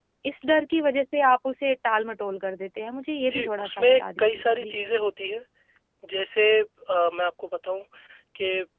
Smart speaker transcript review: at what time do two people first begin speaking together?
3.2 s

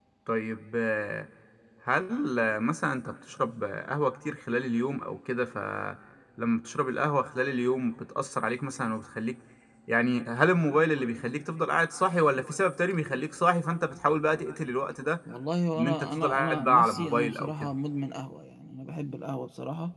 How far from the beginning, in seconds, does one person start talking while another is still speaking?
15.8 s

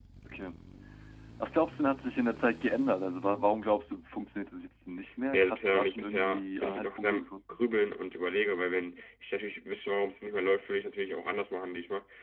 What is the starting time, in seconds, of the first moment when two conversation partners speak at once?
5.3 s

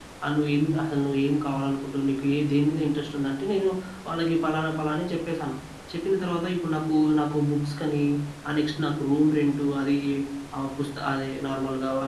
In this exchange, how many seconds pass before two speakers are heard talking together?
none

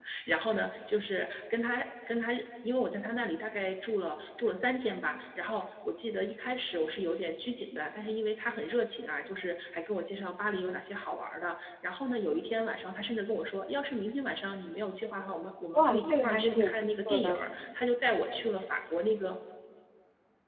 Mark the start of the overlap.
15.8 s

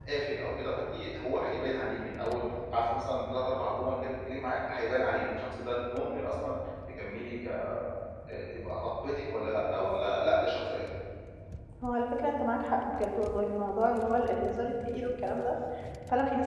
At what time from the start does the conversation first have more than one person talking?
none

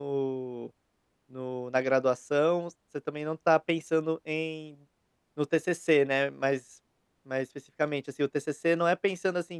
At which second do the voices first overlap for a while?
none

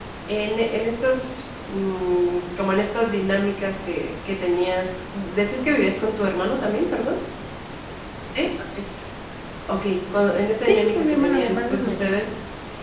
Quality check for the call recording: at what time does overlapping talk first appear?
10.6 s

